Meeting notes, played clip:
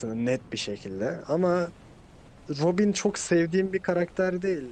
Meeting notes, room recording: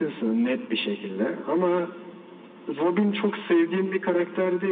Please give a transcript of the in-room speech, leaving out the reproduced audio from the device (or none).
none